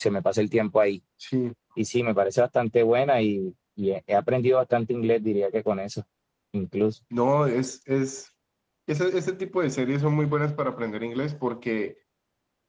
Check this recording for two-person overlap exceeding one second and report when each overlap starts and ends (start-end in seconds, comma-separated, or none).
none